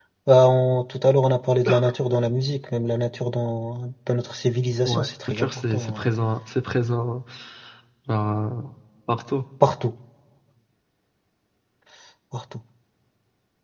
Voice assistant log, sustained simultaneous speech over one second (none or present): present